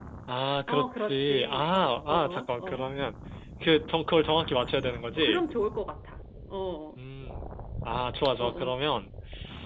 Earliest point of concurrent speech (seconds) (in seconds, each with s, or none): 0.7 s